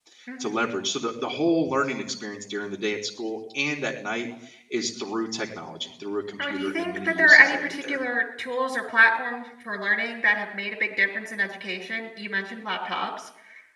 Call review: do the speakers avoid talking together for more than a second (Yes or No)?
No